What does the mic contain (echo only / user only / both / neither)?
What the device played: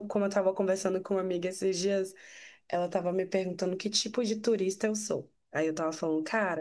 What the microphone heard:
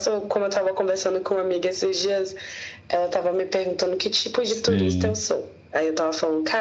both